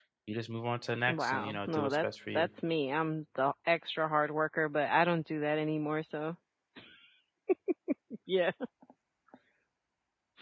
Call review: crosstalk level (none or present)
present